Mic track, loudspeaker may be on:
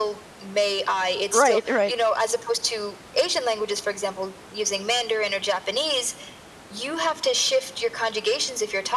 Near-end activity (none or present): present